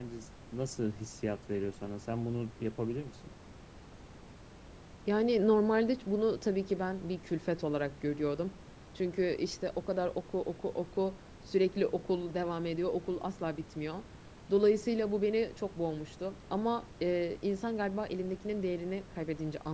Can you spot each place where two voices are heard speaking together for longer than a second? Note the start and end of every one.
none

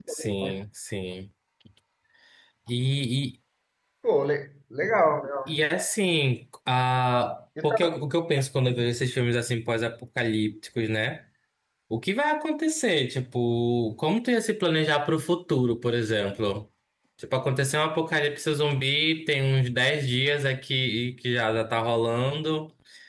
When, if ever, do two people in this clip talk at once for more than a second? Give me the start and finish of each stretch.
none

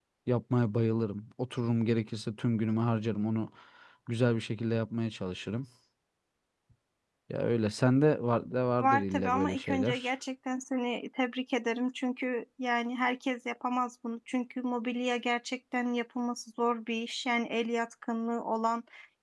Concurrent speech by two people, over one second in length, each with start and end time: 8.8-10.1

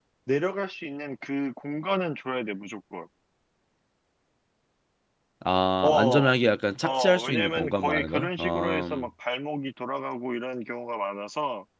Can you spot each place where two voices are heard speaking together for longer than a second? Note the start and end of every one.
6.8-9.1

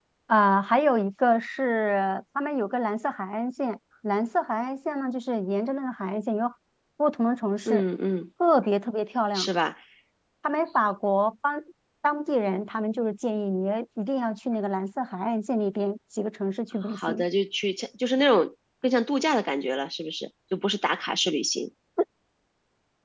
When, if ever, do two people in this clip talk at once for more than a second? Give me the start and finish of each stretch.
none

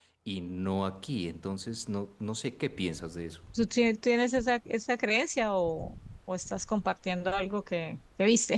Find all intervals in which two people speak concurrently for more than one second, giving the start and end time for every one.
none

